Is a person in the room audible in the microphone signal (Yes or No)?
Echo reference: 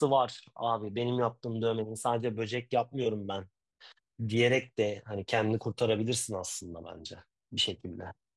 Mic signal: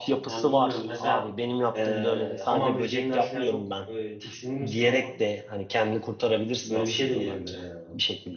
Yes